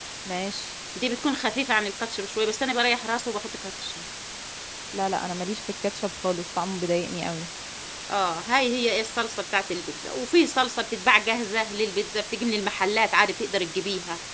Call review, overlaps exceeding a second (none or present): none